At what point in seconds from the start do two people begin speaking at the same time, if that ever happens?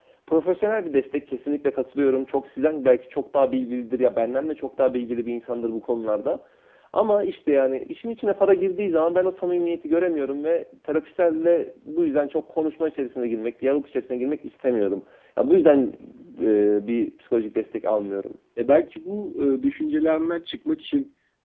none

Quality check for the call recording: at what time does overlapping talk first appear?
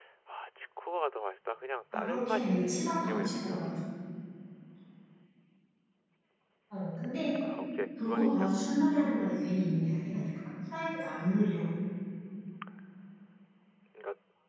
1.9 s

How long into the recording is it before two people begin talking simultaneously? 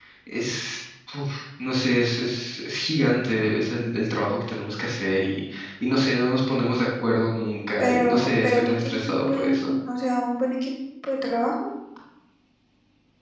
7.8 s

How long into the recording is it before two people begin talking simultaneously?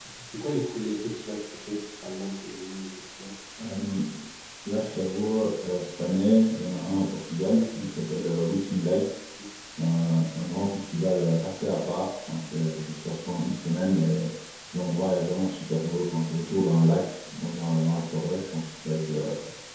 none

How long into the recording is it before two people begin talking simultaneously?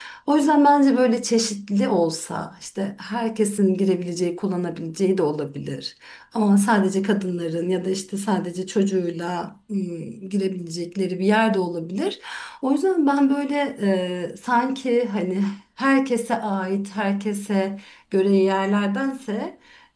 none

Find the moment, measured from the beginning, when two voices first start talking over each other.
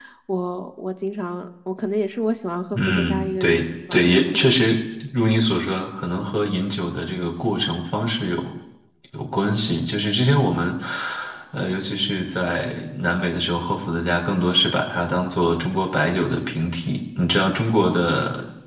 2.7 s

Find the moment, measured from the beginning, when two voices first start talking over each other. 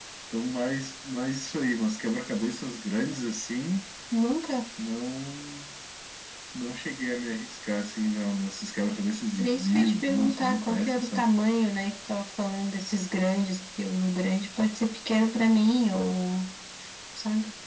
9.4 s

